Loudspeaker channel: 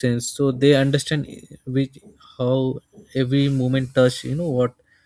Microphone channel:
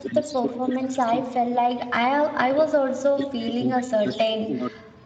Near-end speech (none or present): present